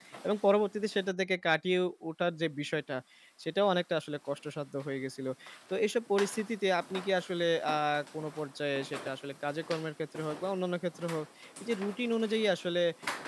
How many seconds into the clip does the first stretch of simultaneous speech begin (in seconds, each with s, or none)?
none